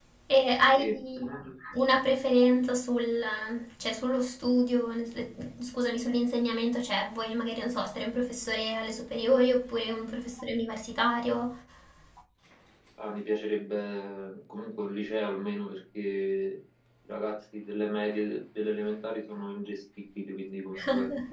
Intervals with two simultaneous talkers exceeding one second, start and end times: none

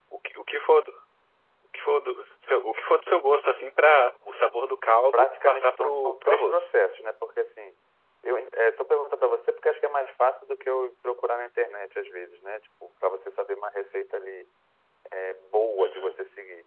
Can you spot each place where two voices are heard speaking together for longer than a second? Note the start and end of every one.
5.1-6.7

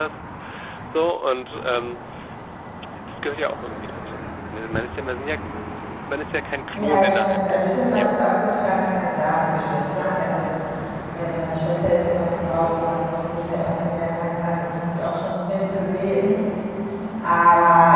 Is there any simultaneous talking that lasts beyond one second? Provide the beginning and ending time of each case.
6.7-8.1

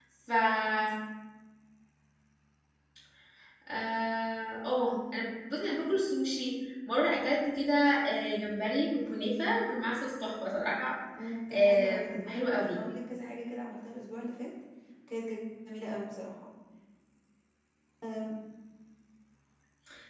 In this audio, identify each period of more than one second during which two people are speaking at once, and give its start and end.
11.5-12.8

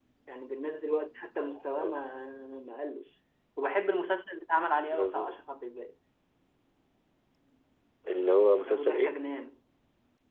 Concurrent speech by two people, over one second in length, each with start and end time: none

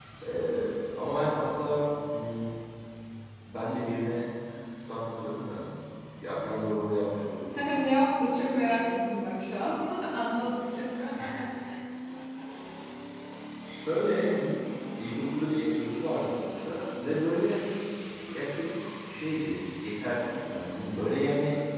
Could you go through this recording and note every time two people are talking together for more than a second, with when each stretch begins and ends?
none

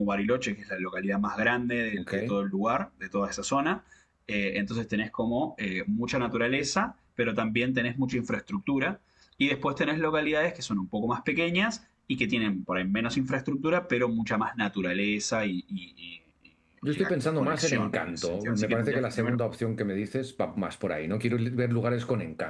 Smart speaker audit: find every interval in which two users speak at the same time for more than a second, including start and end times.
16.9-19.4

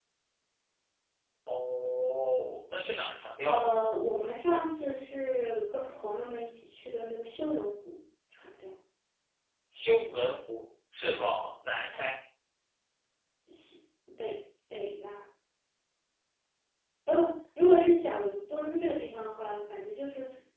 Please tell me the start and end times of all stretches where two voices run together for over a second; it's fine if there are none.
none

